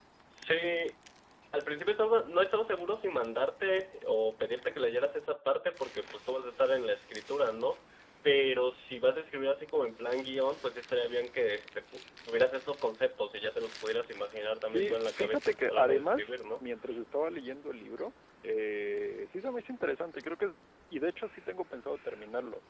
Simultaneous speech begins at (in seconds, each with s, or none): 14.6 s